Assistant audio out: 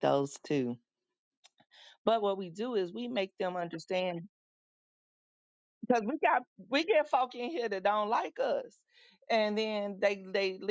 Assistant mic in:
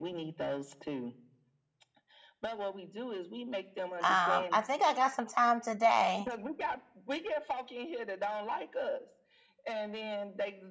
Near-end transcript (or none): I think I got some time today.